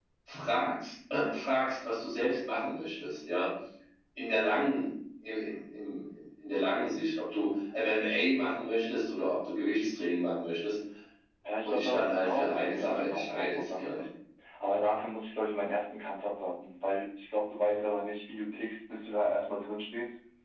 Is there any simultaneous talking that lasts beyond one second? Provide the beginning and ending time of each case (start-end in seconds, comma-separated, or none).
11.6-14.0